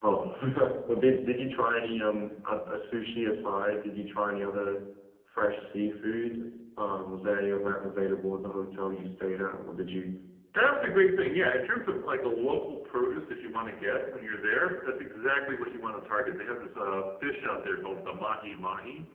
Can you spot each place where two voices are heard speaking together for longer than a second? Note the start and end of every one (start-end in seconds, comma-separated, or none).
none